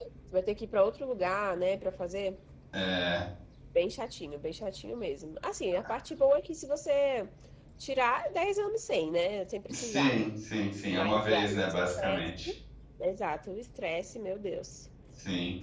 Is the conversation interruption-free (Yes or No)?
No